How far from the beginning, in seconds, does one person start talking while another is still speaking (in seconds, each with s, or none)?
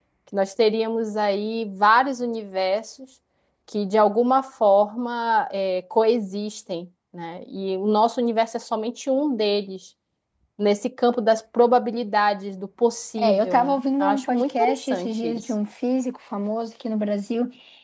13.2 s